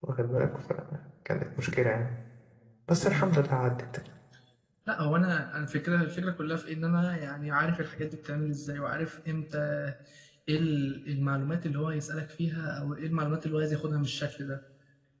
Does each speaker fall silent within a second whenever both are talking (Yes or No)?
Yes